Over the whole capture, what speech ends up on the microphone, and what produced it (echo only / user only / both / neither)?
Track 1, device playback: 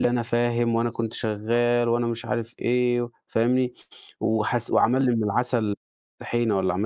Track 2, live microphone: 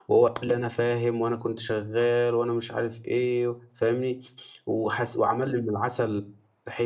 echo only